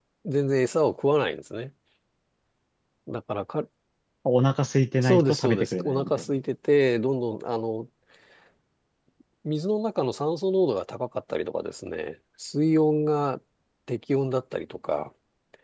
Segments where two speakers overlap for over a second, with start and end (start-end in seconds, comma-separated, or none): 5.0-6.3